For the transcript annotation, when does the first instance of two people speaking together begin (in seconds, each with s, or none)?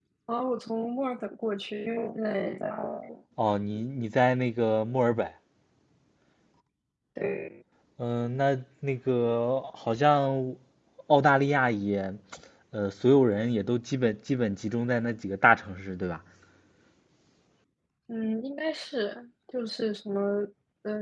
none